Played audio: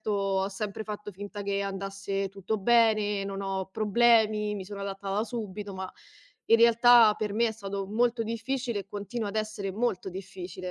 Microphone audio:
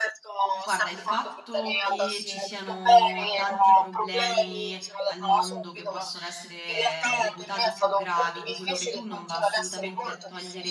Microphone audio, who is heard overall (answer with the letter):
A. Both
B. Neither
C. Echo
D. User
A